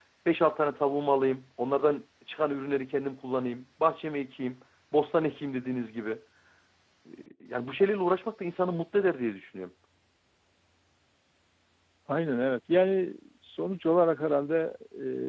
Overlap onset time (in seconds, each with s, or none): none